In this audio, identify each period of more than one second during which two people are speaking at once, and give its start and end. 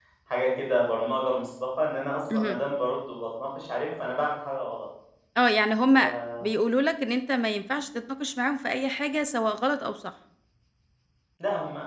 none

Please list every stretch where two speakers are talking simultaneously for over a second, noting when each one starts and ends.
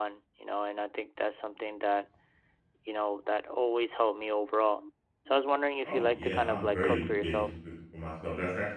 5.8-7.5

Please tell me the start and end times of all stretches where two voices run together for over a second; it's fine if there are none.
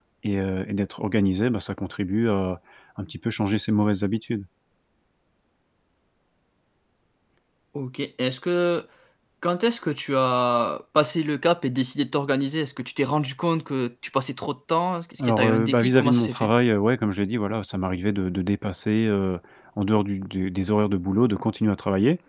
15.2-16.5

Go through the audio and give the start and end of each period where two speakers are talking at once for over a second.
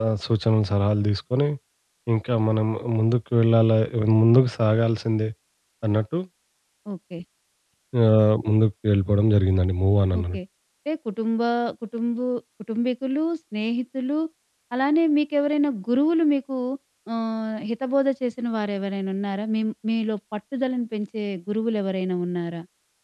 none

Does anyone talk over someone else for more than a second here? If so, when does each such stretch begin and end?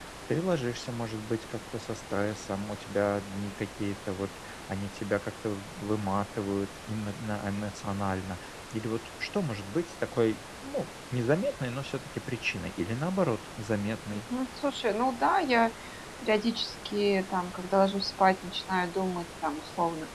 none

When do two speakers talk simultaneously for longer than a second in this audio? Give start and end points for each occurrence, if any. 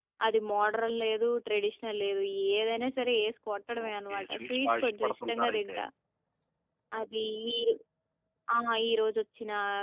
3.9-5.8

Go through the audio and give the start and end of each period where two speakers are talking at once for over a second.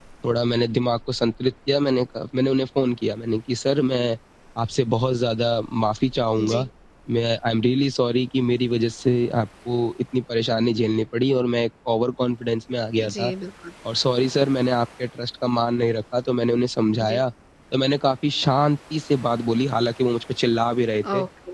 none

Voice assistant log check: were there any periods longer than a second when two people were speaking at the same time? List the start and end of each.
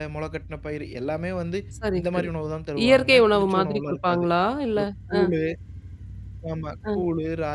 2.9-4.3

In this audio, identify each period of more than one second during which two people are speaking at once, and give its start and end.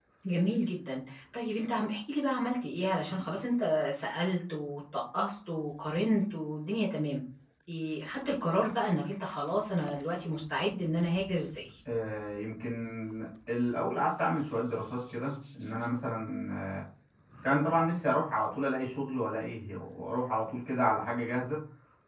none

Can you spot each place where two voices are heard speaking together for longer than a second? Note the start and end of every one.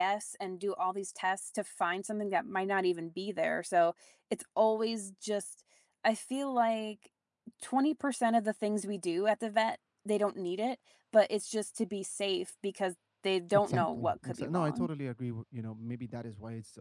13.7-14.9

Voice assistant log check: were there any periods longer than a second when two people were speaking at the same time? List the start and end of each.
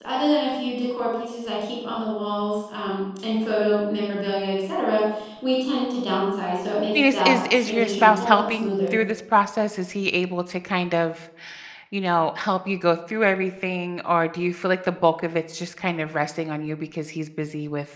7.0-9.0

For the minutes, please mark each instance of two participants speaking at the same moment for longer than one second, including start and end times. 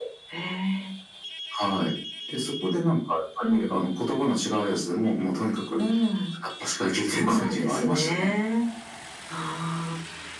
7.0-8.3

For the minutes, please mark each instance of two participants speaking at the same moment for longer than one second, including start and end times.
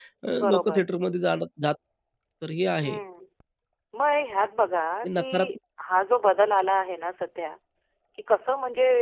none

